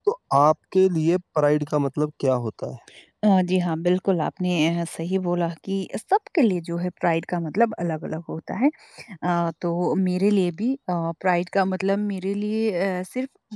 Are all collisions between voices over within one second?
Yes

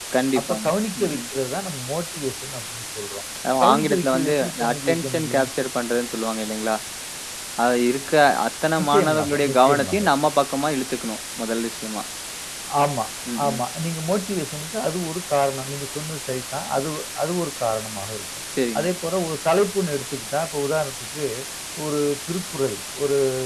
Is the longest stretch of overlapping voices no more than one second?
No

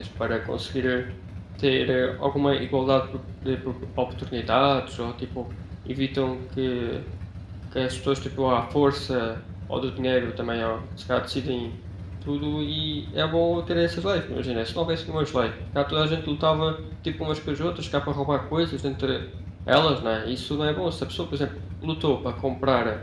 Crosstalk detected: No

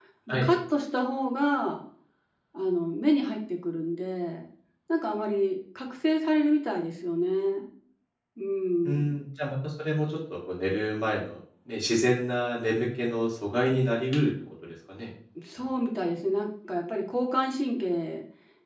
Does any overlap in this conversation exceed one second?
No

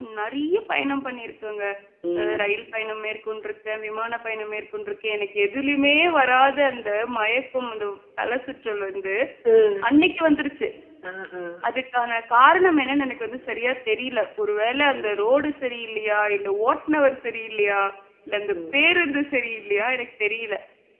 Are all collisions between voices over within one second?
Yes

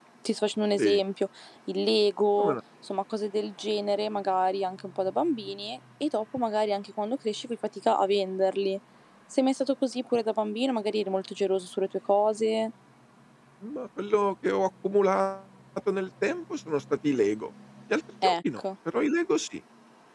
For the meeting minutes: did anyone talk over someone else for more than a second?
No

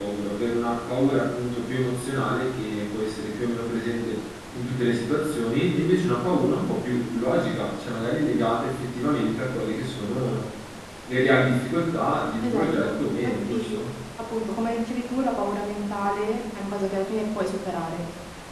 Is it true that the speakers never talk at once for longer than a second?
No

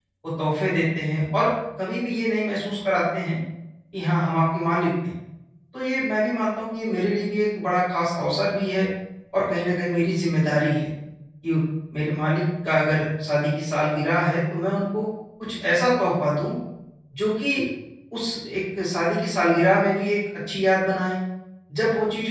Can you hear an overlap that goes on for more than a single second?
No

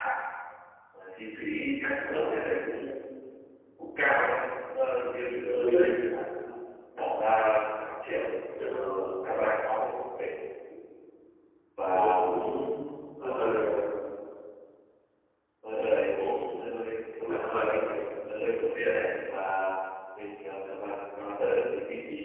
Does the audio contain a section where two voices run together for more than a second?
No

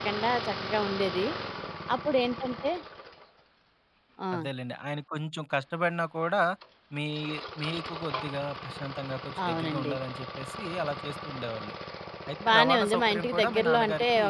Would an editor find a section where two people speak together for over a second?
Yes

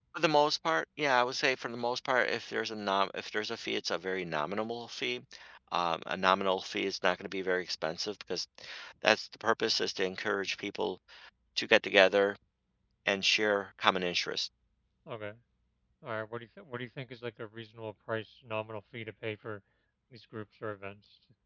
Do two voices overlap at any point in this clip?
No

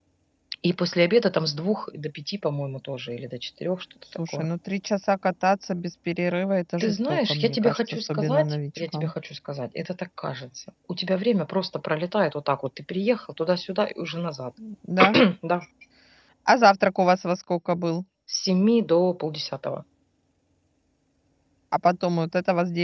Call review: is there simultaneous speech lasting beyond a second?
Yes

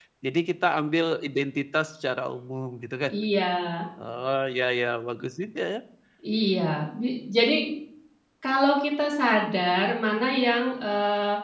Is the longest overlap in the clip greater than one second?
No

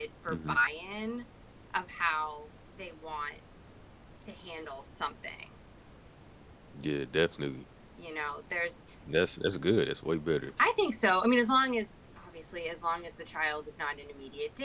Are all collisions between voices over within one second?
Yes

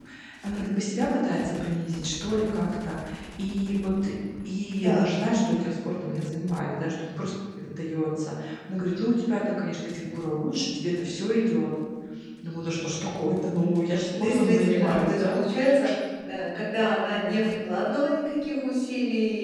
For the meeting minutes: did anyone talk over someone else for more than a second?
Yes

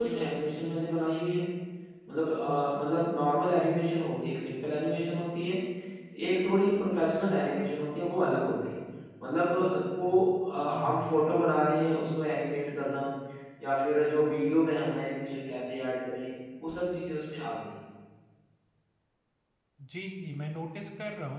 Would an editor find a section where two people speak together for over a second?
No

